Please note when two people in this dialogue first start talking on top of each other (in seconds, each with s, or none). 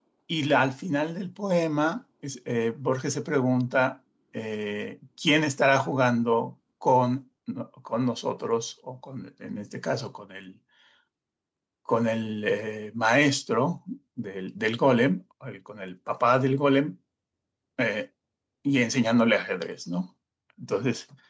none